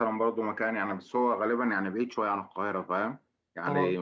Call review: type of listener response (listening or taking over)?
listening